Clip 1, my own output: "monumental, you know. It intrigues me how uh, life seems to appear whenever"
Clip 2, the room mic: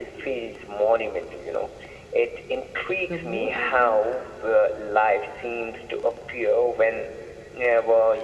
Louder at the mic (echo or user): echo